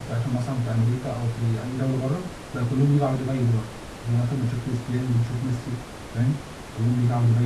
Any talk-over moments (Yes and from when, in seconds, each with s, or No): No